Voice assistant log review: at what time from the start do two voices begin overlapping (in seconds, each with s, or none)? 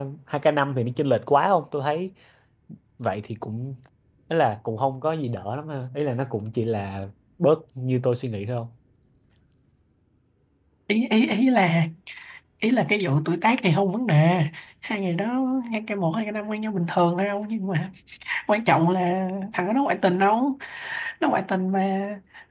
none